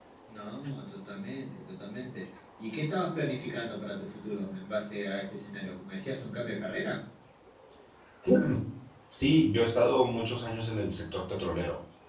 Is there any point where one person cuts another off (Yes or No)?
No